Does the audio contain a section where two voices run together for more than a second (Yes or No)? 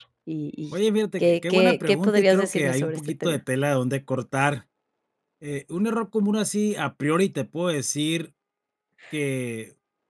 Yes